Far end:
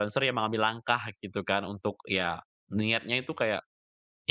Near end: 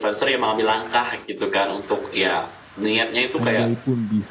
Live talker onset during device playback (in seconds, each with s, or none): 3.4 s